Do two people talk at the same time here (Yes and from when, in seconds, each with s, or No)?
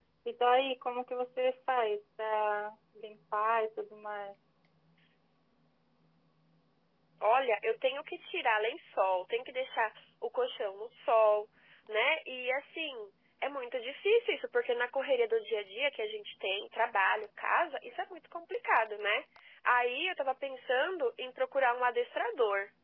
No